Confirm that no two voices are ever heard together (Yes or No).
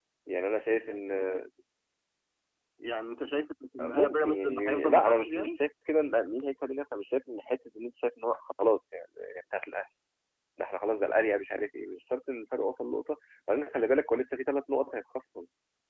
No